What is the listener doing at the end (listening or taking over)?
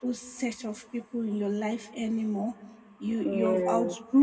listening